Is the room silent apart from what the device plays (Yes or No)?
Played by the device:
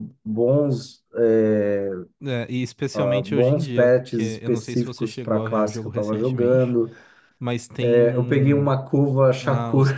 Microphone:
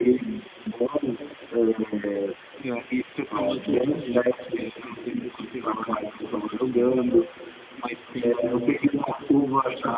Yes